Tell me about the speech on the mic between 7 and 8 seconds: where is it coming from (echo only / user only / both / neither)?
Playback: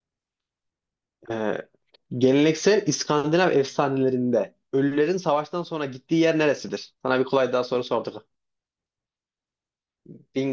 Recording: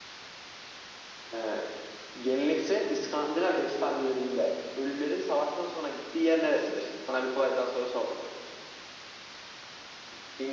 echo only